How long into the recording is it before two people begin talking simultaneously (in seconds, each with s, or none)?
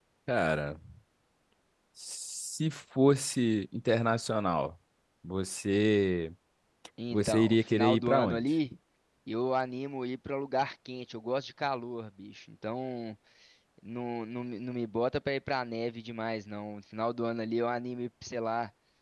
7.1 s